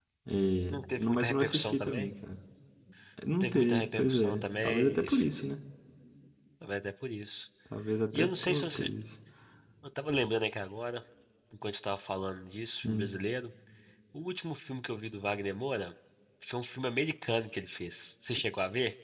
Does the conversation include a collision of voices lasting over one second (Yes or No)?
Yes